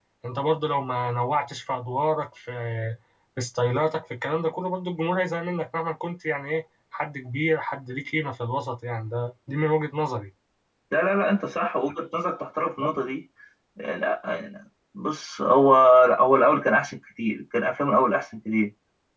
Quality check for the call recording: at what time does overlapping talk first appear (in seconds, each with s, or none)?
none